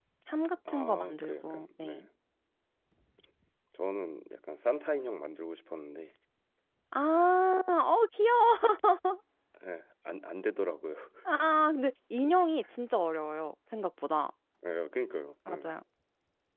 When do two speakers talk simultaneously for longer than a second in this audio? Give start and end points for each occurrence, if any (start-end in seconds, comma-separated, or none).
0.7-2.0